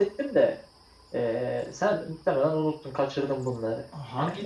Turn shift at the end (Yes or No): Yes